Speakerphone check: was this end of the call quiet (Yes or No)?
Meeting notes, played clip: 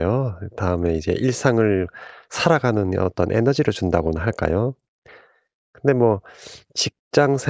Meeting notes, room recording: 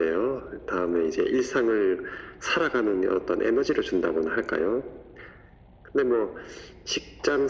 Yes